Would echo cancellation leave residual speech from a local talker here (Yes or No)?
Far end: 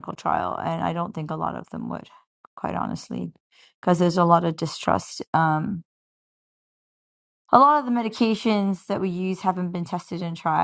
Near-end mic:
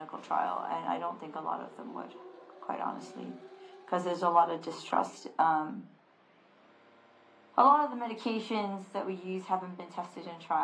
No